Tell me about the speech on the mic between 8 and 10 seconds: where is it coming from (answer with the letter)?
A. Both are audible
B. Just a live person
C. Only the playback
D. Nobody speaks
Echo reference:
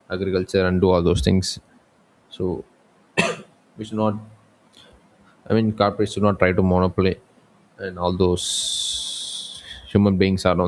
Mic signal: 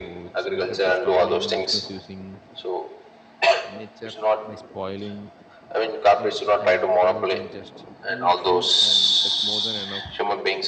A